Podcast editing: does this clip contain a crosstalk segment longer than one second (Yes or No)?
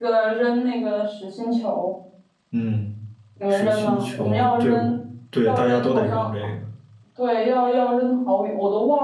Yes